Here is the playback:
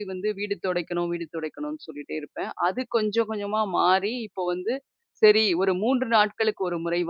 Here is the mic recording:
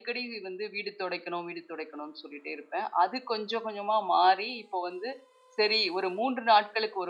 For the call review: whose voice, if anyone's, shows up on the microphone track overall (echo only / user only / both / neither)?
echo only